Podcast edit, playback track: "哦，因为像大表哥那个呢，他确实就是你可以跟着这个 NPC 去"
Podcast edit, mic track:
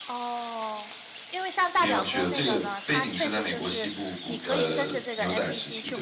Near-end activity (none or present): present